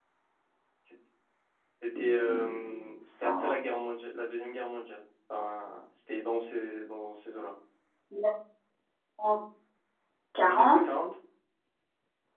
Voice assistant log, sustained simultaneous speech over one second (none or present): present